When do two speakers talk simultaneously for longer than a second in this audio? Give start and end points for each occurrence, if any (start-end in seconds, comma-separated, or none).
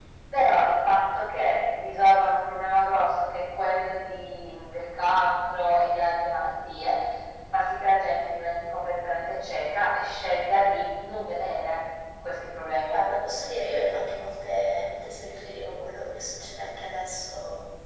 none